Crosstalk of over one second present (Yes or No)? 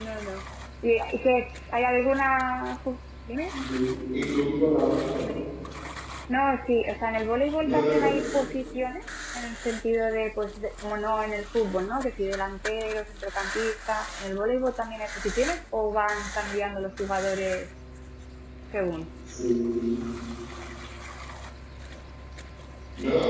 No